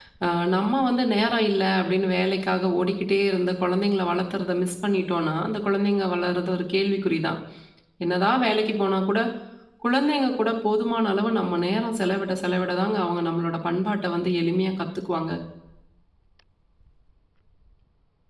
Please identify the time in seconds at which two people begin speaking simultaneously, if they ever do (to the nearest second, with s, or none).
none